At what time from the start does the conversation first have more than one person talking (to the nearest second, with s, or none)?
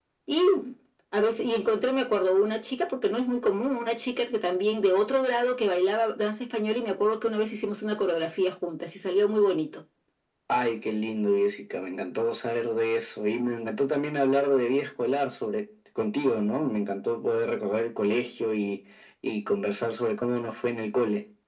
none